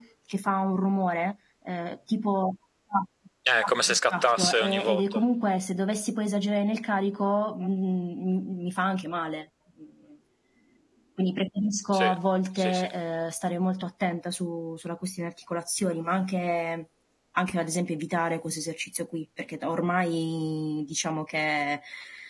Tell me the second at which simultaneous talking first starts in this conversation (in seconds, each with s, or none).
3.9 s